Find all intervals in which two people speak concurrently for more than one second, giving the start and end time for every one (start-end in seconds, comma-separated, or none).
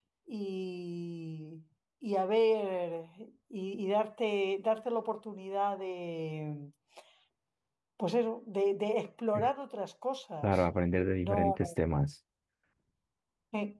none